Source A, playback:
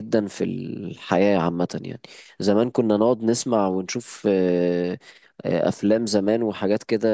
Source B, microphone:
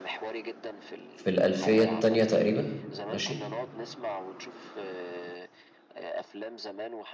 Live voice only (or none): في الالفيه التانية تقريبا ماشي